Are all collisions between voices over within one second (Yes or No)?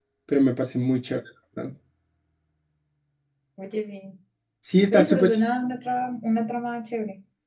Yes